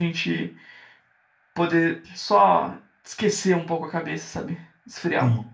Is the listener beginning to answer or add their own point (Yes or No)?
Yes